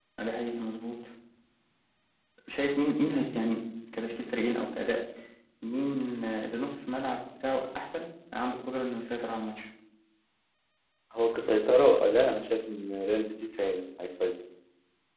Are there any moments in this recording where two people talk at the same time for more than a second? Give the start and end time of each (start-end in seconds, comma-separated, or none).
none